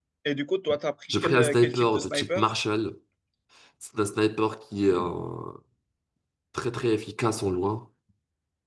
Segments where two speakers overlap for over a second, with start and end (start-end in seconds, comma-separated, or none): 1.1-2.5